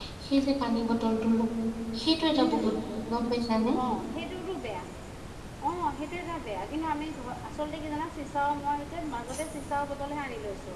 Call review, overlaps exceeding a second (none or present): none